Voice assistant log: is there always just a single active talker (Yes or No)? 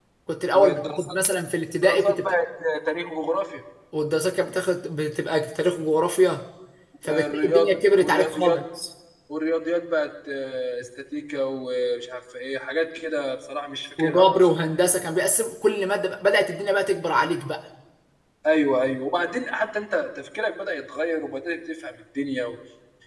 No